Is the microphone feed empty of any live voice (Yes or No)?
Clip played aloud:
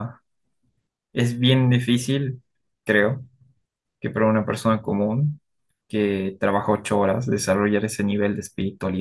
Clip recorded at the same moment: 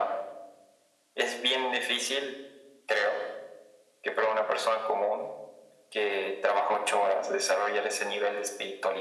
Yes